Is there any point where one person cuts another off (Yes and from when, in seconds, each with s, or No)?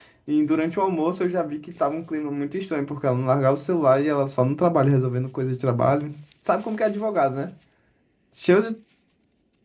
No